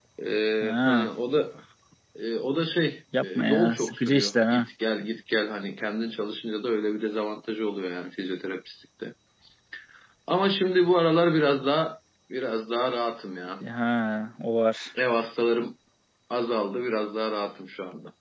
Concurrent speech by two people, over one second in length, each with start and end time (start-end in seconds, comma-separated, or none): 3.2-4.7